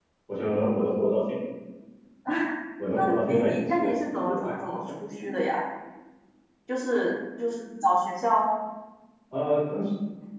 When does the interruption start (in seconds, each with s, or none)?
3.0 s